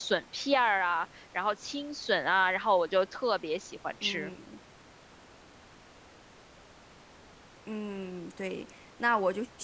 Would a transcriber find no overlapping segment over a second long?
Yes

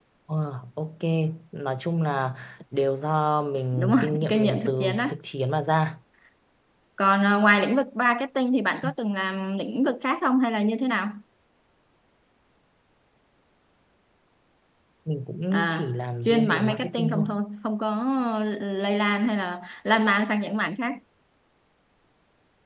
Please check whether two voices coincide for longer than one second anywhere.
Yes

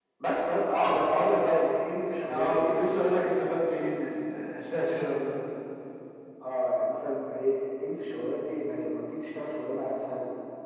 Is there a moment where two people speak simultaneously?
Yes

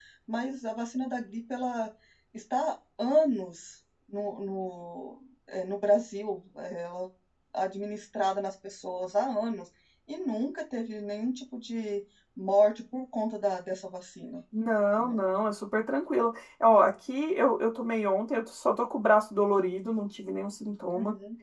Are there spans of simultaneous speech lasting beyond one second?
No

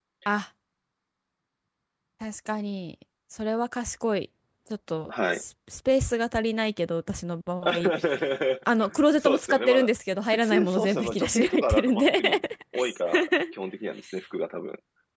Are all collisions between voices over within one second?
No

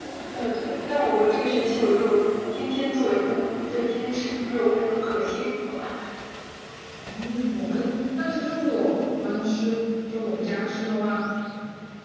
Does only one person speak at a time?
Yes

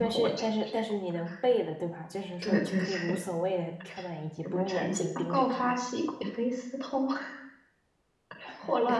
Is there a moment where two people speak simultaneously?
Yes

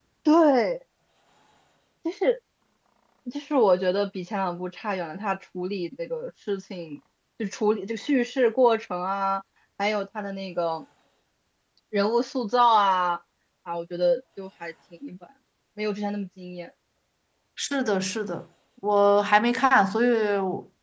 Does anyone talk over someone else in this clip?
No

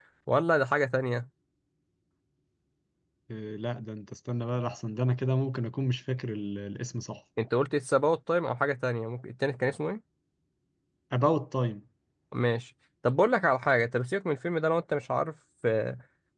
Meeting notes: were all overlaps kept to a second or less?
Yes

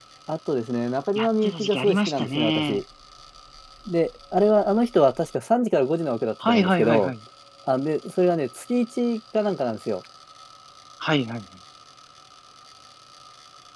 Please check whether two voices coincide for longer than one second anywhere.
Yes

